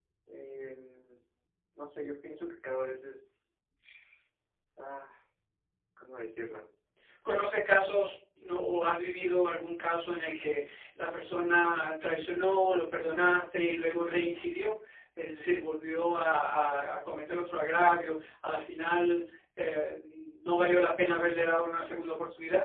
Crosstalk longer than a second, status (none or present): none